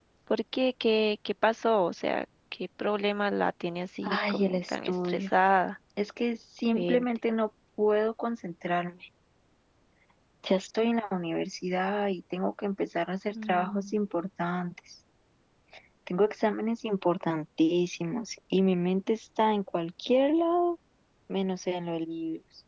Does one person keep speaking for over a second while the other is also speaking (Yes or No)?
Yes